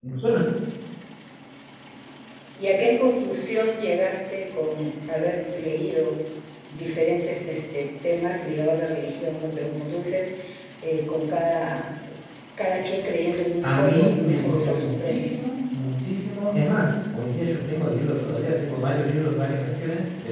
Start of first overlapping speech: 13.6 s

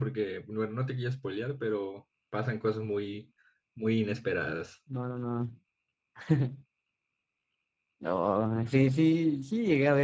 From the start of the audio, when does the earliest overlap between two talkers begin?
none

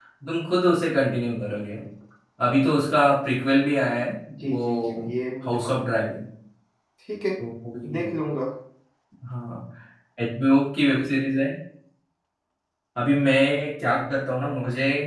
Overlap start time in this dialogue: 4.4 s

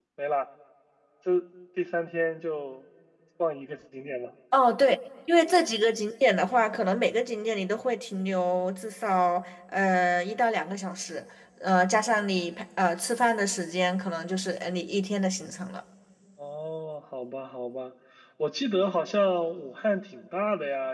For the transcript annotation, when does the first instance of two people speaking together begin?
none

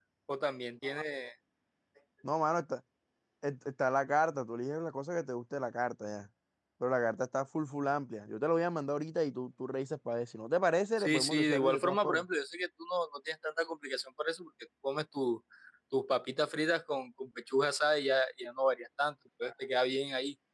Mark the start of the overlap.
11.0 s

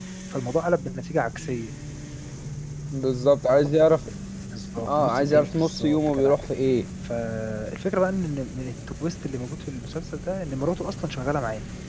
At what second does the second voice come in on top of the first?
4.9 s

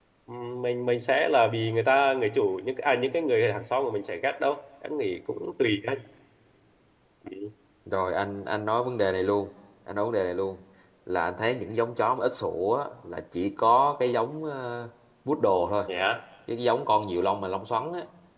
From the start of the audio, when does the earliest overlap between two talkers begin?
none

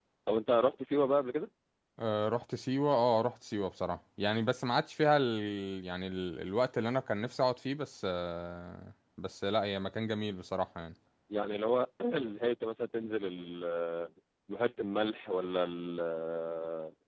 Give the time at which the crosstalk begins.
none

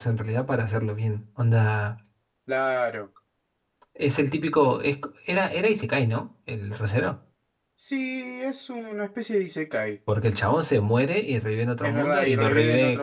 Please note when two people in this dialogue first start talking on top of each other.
11.8 s

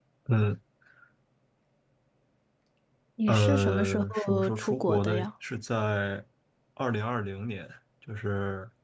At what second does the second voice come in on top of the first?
3.3 s

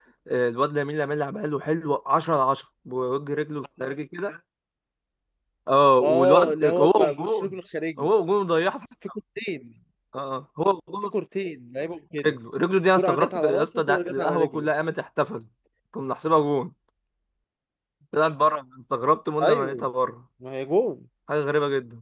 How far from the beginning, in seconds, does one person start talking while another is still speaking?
6.0 s

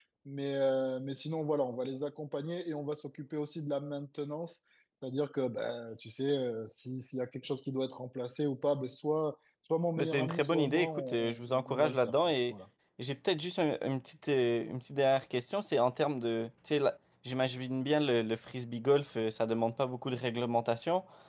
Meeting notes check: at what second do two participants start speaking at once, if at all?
10.0 s

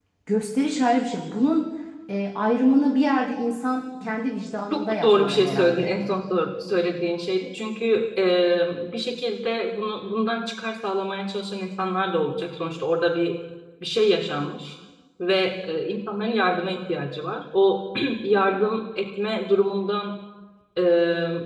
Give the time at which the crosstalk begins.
4.7 s

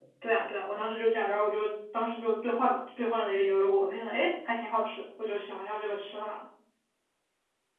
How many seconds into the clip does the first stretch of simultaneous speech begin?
none

